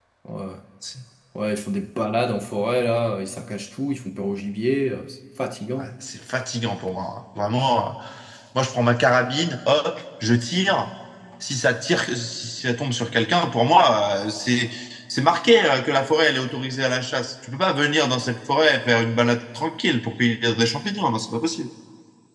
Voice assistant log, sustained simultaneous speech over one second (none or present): none